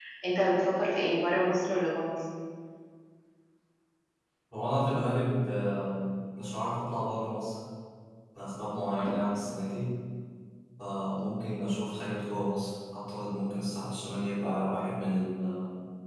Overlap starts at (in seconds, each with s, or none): none